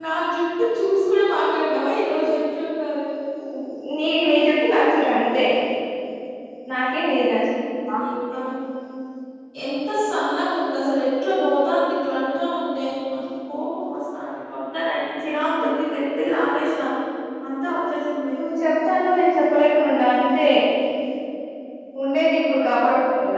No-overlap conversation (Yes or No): Yes